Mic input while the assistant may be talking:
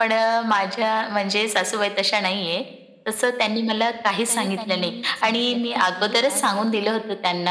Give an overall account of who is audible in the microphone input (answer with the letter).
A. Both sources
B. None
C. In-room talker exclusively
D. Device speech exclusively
A